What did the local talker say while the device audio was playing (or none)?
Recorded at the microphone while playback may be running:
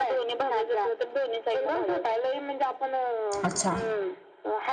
अच्छा